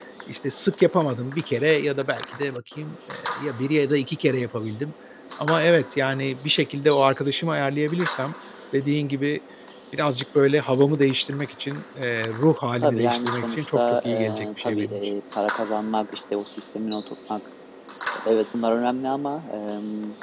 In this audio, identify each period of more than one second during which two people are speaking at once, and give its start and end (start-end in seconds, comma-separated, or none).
12.8-15.1